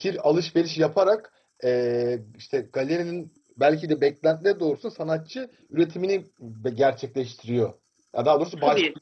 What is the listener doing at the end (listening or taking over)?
listening